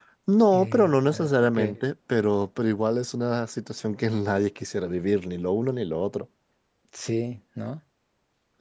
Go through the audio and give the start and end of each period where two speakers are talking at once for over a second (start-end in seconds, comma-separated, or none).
0.5-1.8